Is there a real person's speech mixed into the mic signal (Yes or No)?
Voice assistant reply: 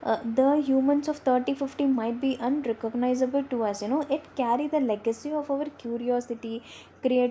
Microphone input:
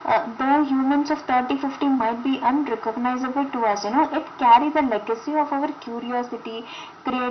No